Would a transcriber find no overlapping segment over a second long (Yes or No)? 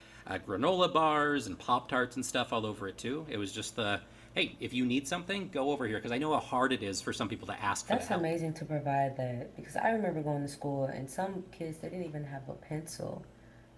Yes